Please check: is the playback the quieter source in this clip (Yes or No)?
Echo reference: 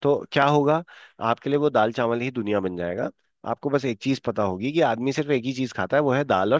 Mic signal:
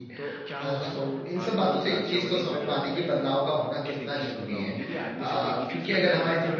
Yes